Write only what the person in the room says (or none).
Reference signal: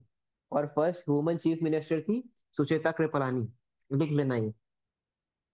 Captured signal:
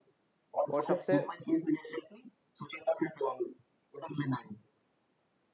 और सबसे